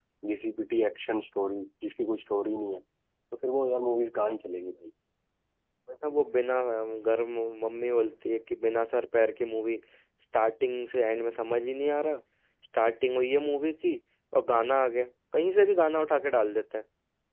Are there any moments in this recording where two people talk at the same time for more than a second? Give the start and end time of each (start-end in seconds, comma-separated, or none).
none